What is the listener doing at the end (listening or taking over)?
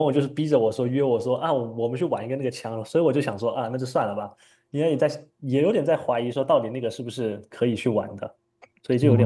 taking over